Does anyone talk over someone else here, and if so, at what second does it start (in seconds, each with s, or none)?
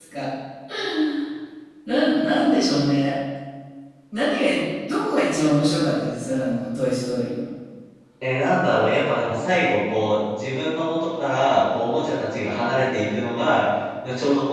none